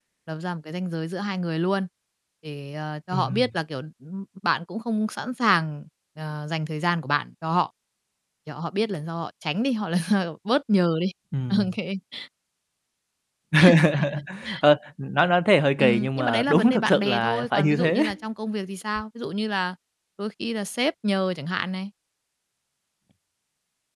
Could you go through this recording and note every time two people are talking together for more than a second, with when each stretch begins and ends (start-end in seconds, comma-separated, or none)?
15.8-18.0